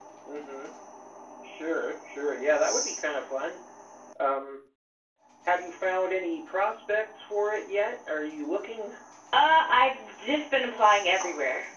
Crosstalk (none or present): none